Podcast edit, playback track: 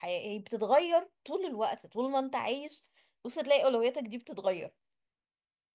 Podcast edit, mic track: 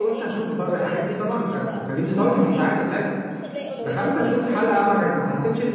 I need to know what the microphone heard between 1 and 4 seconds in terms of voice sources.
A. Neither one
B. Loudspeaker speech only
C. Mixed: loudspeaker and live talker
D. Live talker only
C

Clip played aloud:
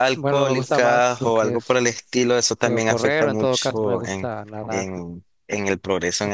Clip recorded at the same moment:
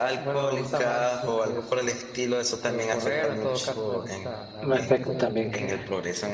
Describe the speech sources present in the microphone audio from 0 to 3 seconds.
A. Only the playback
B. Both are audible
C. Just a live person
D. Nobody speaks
A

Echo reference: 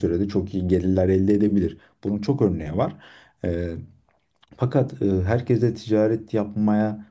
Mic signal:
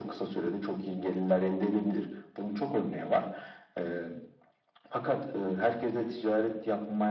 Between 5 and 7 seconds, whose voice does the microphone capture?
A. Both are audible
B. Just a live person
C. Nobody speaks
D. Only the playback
D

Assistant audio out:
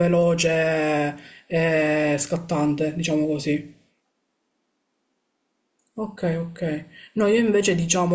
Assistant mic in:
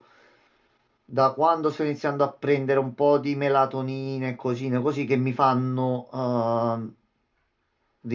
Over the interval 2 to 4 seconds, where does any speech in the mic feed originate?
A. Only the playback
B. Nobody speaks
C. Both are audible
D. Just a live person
D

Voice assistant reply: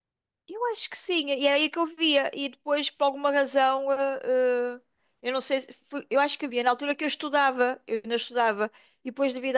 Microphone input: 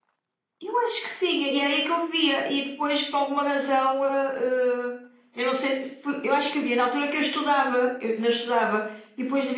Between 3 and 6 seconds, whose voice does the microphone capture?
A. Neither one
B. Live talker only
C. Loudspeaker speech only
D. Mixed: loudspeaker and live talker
C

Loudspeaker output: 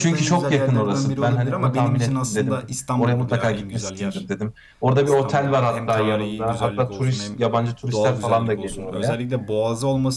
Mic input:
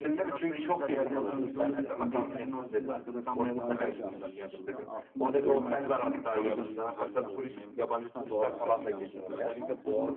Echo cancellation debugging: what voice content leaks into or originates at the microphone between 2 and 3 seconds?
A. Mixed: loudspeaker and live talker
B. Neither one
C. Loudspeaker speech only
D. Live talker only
A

